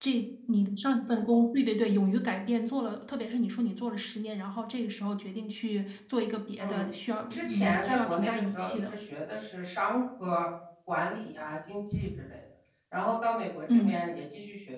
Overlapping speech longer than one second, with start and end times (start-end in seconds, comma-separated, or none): 7.3-9.0